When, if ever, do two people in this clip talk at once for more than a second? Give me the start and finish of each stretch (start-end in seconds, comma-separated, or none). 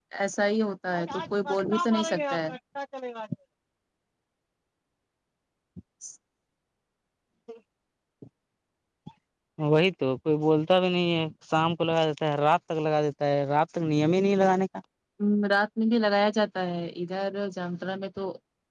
0.9-2.5